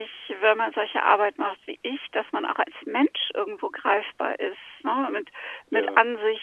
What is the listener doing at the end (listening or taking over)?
listening